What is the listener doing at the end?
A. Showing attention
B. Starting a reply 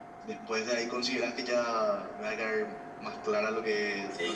B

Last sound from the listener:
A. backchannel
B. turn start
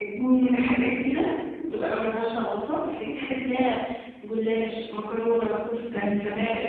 A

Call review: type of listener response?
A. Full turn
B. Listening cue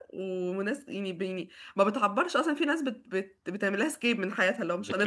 A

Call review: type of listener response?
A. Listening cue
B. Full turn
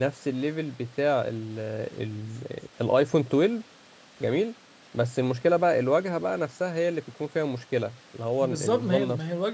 B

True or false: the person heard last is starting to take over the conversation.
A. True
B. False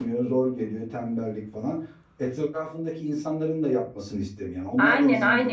A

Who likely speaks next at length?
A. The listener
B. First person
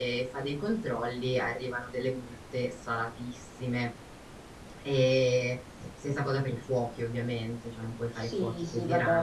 A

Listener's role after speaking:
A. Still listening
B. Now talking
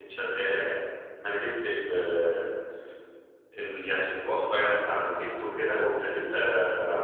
A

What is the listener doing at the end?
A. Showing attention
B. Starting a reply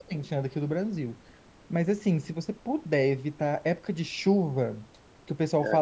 A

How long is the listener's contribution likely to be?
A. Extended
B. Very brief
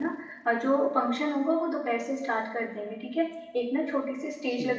B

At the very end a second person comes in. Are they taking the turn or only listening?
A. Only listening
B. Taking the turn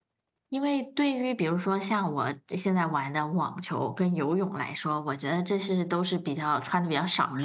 B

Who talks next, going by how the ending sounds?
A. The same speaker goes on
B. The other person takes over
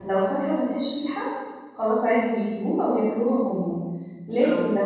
A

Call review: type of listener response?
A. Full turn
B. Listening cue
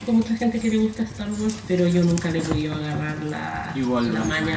A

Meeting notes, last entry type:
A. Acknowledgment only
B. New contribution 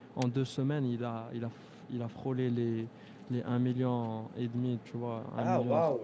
B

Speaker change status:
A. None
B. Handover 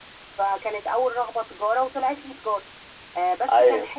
A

